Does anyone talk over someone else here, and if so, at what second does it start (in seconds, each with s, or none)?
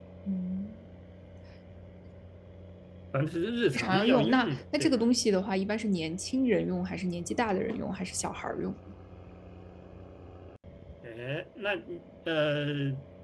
3.7 s